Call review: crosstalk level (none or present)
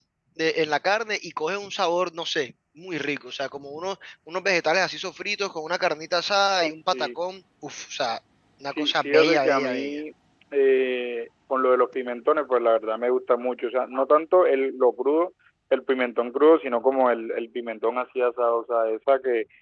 present